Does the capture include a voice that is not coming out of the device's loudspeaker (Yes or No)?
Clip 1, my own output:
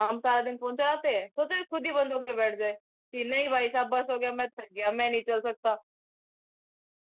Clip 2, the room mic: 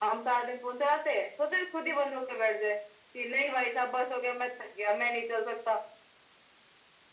No